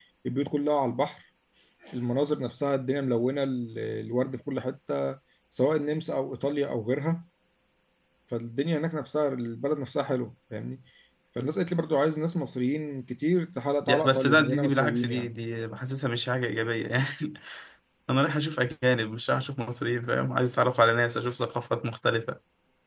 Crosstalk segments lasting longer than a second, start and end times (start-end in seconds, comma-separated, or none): 13.8-15.3